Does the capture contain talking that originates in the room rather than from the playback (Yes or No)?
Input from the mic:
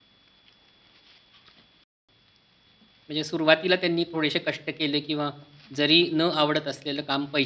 Yes